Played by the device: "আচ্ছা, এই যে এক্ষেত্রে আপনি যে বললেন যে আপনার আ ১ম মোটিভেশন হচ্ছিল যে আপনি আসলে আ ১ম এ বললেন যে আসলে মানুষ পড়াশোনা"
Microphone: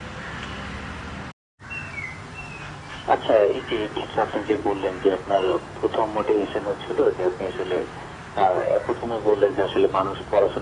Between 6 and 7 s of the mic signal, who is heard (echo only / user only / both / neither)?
echo only